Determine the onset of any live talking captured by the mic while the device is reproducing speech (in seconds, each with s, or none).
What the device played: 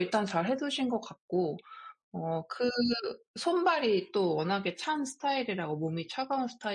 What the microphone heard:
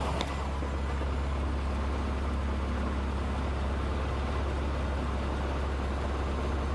none